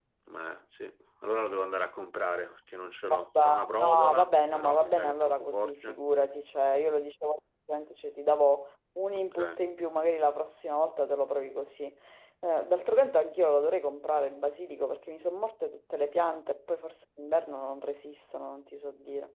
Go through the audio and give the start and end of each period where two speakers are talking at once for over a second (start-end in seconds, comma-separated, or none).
3.4-6.0